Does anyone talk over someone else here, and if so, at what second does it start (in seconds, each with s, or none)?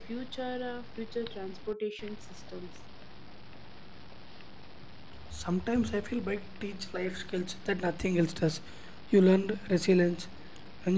none